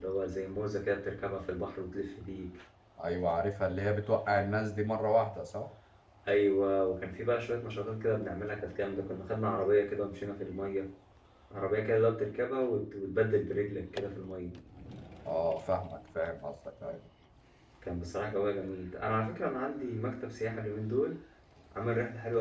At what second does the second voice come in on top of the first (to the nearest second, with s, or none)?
none